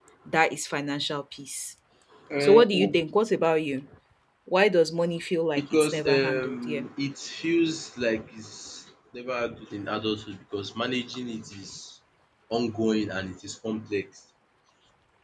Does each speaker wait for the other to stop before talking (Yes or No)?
No